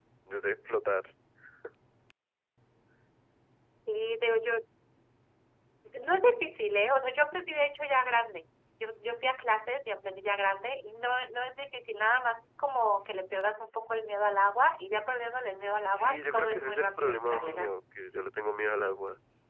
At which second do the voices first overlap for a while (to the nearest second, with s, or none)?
16 s